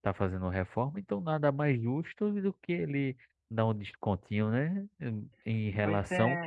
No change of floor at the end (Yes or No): Yes